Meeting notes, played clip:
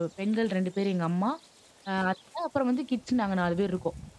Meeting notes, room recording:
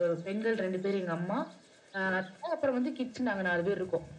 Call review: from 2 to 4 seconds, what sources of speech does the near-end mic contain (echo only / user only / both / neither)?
echo only